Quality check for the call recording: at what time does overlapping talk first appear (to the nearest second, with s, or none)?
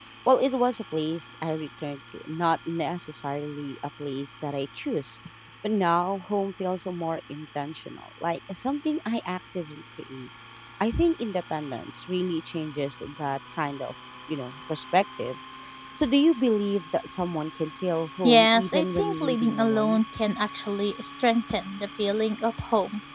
18 s